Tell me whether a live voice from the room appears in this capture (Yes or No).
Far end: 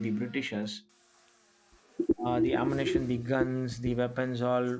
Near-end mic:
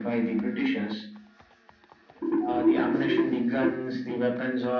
No